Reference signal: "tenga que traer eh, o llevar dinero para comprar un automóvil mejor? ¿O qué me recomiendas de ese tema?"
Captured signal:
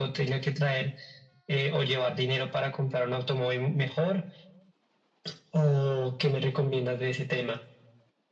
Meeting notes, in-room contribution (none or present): none